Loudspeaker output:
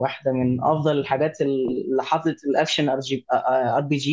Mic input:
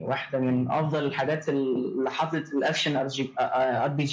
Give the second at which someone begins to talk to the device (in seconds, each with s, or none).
none